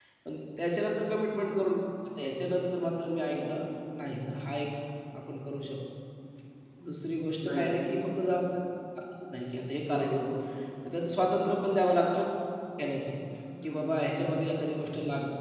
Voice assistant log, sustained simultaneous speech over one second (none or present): none